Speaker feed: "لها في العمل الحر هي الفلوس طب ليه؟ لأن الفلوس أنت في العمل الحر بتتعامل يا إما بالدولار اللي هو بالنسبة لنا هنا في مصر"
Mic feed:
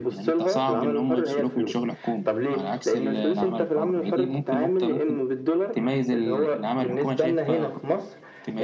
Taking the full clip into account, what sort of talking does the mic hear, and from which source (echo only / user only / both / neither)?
both